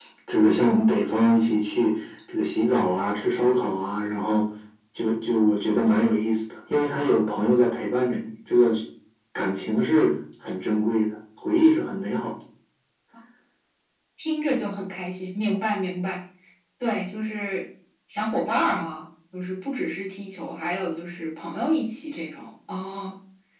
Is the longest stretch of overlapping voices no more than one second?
Yes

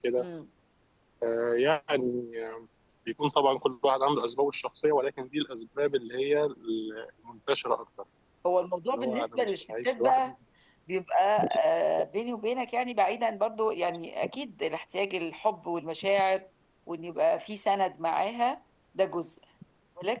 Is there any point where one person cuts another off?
Yes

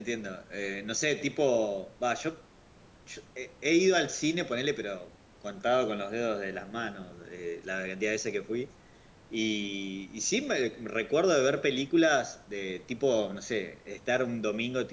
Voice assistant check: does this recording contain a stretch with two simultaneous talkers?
No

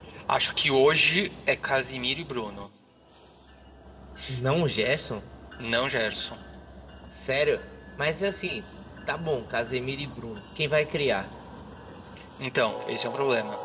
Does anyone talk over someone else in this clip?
No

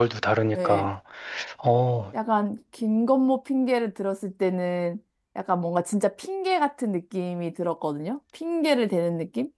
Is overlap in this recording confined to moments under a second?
Yes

